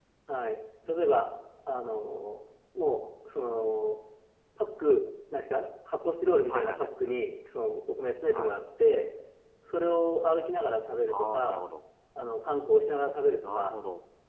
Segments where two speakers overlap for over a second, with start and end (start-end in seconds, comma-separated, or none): none